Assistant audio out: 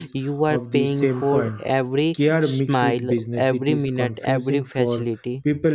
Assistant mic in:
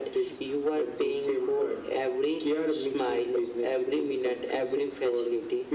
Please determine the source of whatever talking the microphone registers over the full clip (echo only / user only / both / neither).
echo only